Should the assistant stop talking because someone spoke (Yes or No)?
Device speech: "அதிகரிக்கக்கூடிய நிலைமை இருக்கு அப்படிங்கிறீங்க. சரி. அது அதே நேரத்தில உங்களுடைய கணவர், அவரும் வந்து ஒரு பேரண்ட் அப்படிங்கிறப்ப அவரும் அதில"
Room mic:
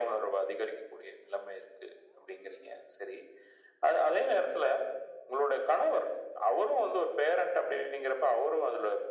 No